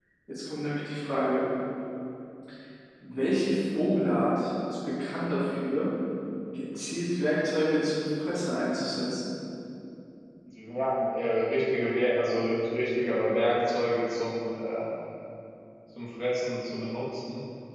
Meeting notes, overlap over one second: none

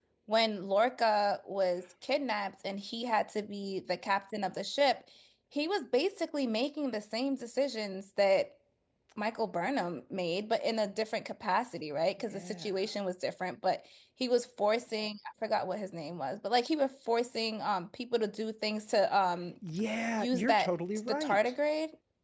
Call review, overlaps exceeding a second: present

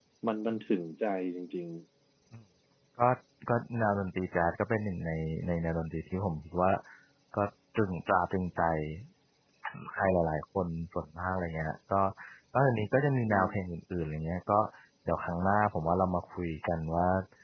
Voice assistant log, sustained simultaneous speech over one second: none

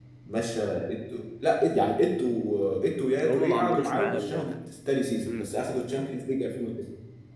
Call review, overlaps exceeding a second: present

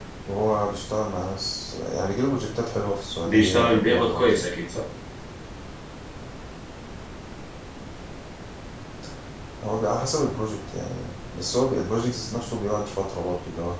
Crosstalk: present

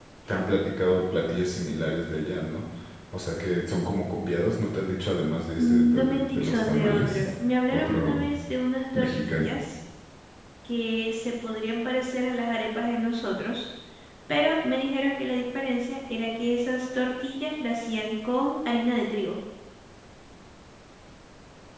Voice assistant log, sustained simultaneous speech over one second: present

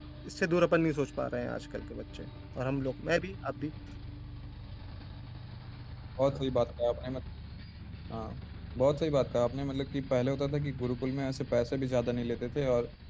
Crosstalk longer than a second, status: none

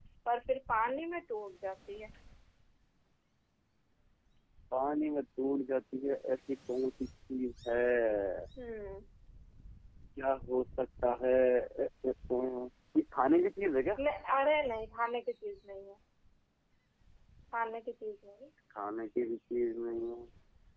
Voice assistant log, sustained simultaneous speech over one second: none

